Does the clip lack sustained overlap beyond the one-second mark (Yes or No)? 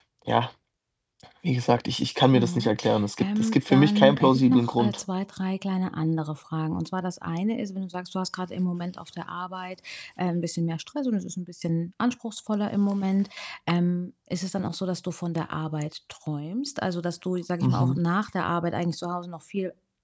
No